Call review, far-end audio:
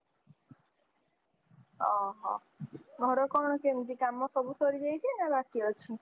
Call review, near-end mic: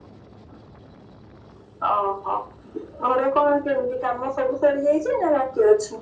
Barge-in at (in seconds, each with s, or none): none